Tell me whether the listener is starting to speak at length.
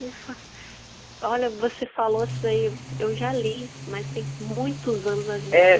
Yes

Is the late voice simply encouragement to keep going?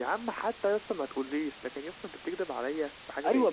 No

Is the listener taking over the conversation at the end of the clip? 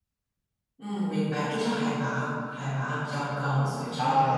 Yes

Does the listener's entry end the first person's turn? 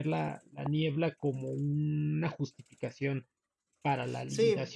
Yes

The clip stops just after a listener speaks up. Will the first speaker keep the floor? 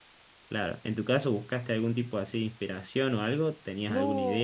No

